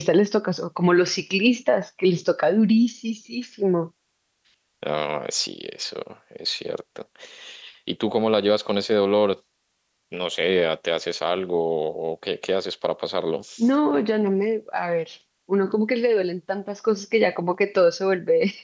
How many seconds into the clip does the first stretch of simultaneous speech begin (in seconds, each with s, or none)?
none